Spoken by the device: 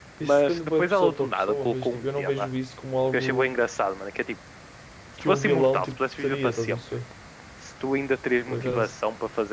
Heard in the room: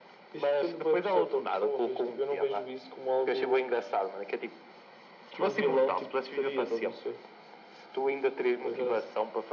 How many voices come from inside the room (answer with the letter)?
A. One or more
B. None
B